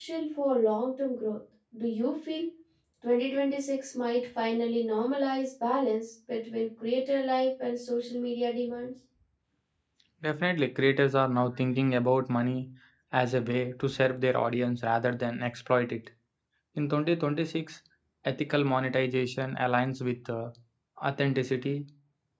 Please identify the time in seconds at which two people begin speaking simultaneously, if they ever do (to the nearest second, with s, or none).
none